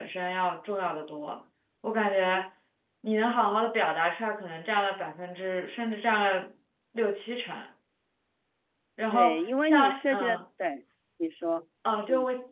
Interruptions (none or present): present